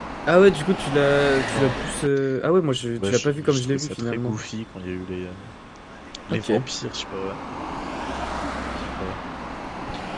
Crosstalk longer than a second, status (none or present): present